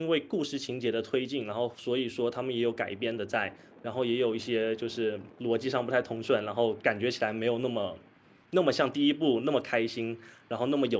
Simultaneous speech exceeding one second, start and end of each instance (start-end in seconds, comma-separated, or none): none